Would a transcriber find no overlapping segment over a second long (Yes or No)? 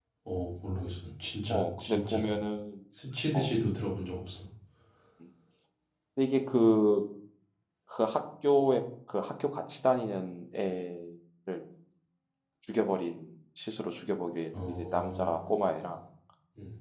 No